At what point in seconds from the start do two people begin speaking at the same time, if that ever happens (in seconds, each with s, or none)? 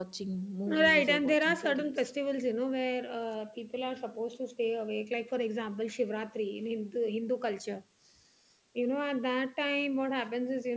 0.7 s